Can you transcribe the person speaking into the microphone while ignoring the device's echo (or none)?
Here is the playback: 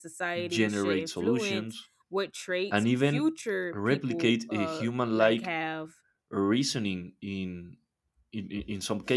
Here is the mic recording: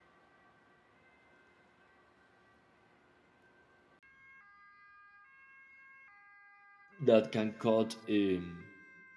that can cut um,